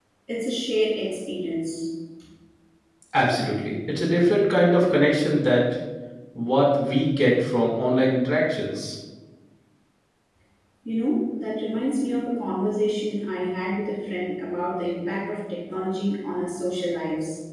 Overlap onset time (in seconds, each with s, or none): none